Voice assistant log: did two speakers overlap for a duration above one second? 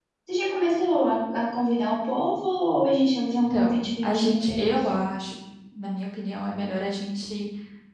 Yes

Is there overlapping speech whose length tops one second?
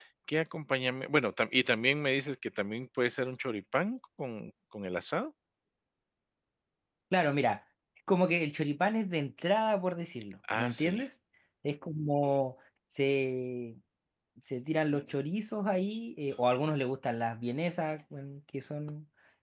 No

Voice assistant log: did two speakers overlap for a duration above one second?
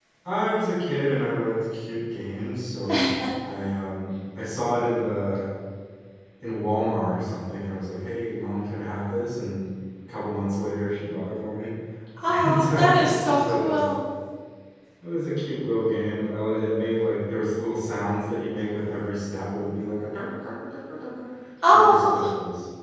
Yes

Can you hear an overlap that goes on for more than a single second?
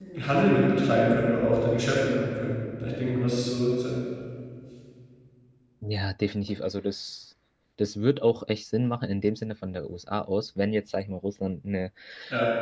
No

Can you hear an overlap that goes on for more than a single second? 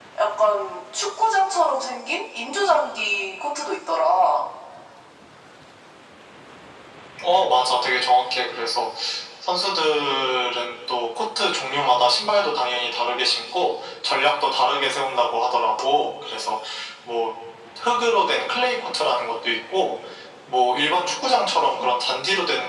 No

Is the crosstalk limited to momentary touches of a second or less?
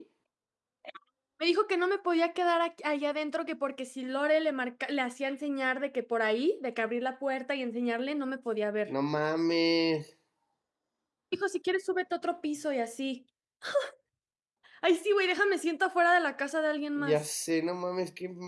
Yes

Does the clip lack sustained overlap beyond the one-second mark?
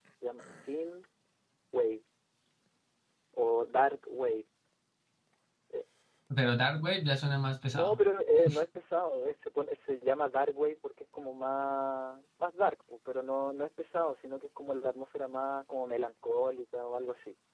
Yes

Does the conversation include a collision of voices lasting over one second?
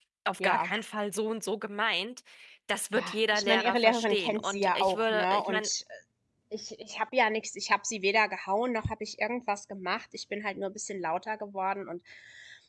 Yes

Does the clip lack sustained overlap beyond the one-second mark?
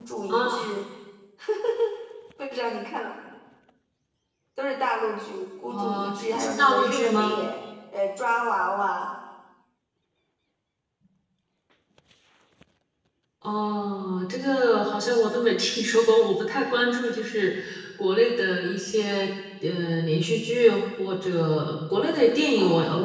No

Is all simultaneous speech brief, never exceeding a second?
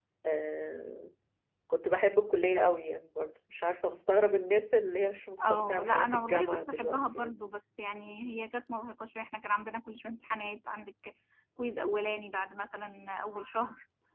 No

